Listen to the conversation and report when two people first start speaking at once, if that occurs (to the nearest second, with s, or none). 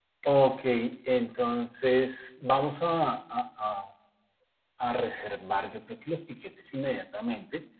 none